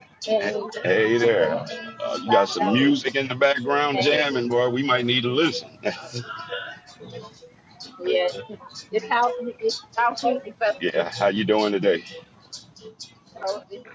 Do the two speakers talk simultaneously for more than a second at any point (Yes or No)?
Yes